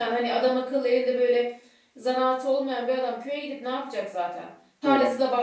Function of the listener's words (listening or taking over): listening